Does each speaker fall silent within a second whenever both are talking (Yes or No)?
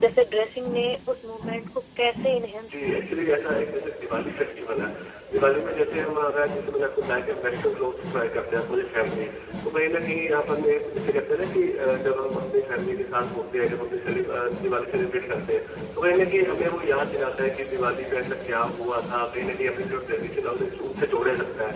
Yes